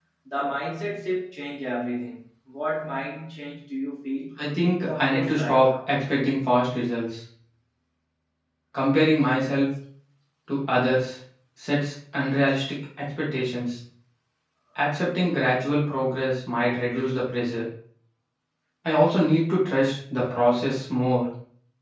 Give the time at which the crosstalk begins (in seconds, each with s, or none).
4.4 s